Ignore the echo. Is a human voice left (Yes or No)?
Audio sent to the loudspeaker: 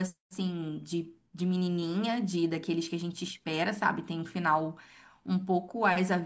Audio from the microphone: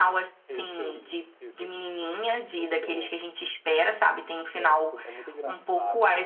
Yes